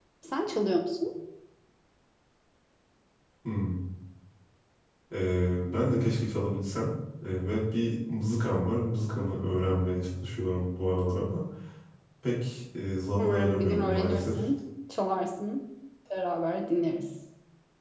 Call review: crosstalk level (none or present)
present